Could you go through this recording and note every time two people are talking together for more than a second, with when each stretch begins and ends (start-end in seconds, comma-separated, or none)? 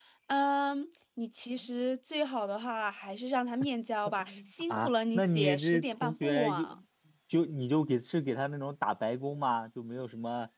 4.7-6.7